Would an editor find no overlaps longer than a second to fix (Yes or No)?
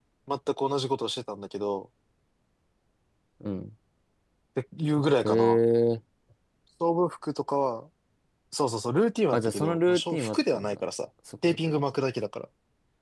No